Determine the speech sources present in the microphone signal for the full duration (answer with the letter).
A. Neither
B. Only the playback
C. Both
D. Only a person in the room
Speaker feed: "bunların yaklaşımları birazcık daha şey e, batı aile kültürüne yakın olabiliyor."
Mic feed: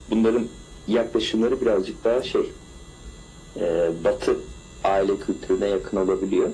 B